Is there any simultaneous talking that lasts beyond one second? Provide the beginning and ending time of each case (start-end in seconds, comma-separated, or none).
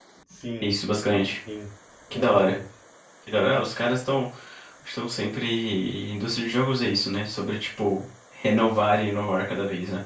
none